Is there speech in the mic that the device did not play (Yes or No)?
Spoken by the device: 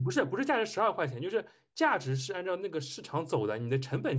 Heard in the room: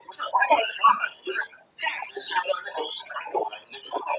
No